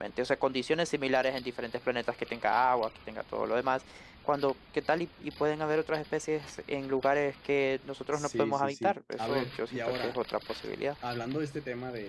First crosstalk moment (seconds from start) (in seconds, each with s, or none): 8.1 s